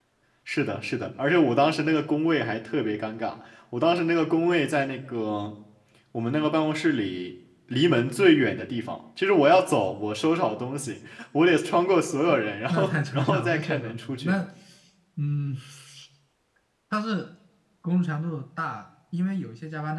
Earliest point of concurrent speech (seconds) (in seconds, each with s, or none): 12.7 s